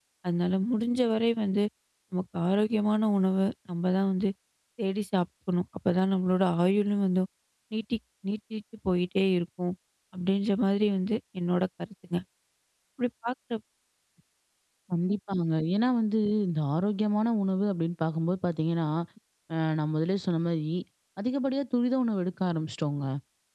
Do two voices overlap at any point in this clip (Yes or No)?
No